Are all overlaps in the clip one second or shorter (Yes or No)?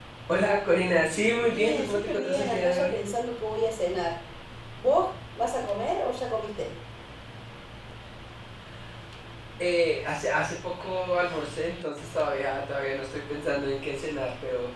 No